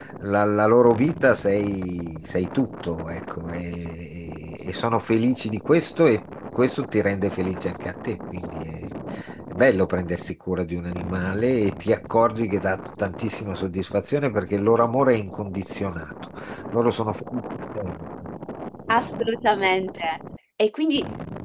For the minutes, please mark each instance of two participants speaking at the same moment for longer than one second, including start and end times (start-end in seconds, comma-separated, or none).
none